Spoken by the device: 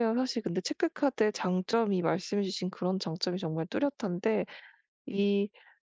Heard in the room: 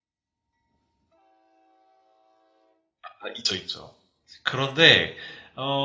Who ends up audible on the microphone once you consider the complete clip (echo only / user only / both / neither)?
user only